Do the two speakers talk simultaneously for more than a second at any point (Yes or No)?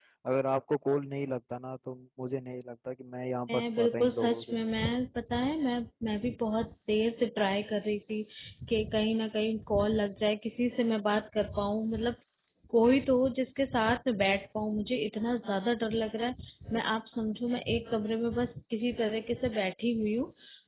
Yes